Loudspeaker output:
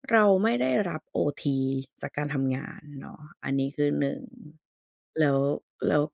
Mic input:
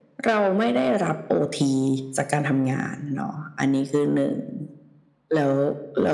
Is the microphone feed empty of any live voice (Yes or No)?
Yes